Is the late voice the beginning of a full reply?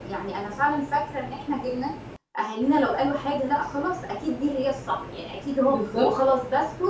No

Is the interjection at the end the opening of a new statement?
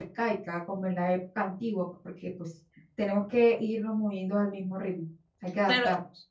Yes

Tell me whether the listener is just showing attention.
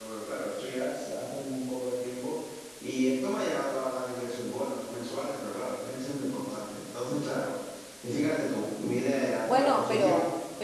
No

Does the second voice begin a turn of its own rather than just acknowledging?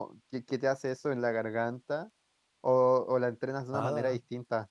Yes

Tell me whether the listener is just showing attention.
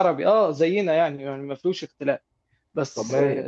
Yes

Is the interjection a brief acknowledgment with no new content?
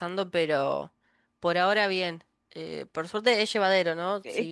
Yes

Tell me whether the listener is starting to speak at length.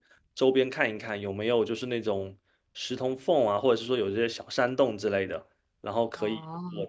No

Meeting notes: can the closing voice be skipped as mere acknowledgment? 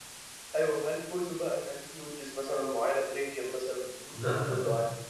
No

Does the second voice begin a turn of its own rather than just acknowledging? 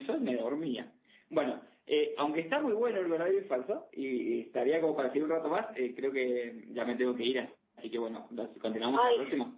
Yes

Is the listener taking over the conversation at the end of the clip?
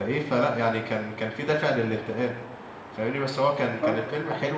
No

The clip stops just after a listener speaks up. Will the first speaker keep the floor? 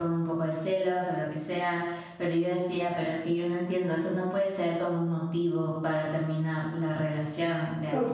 No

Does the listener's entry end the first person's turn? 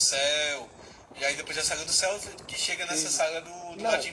Yes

